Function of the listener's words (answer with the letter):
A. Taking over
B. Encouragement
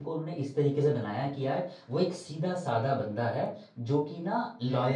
B